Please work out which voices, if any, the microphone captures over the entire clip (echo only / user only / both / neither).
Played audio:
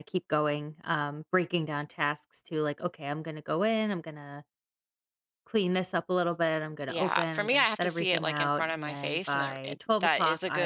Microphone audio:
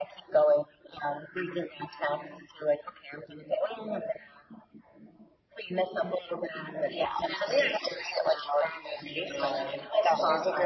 both